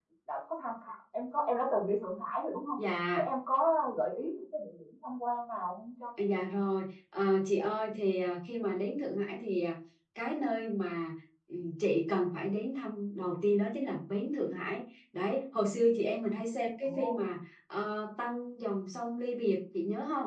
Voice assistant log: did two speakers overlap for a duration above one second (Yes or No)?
No